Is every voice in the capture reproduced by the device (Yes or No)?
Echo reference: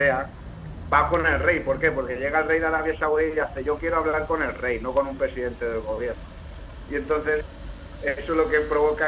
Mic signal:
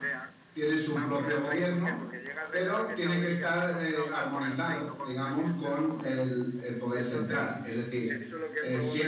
No